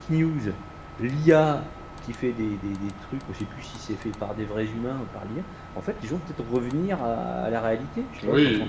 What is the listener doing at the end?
taking over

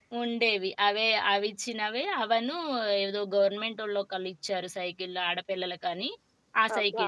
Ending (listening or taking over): taking over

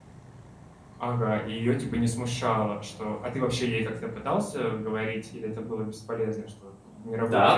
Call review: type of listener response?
taking over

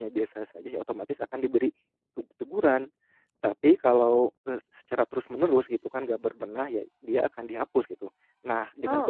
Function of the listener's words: listening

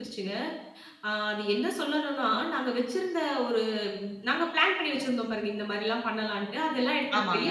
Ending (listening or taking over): listening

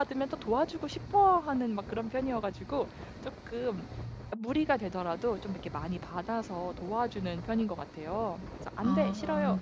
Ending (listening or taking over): listening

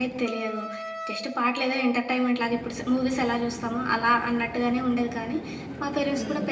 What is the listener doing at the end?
listening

